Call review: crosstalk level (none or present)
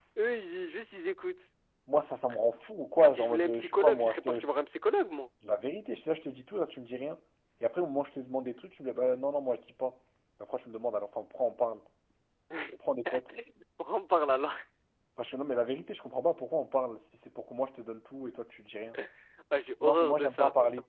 present